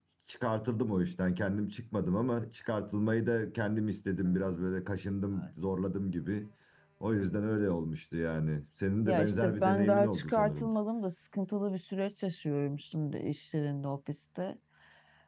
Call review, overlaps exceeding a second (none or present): present